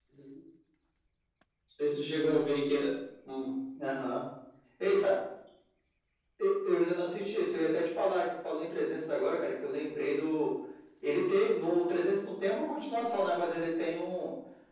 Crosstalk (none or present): none